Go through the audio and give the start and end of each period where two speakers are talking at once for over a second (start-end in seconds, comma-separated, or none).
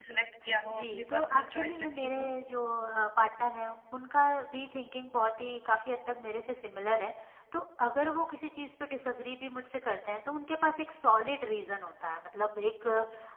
0.7-2.3